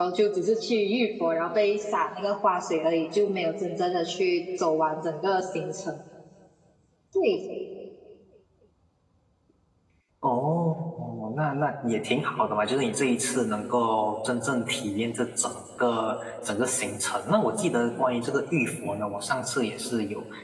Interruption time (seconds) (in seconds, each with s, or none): none